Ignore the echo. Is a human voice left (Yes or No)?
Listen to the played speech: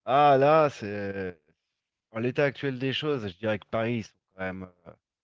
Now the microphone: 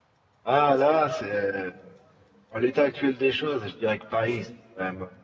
No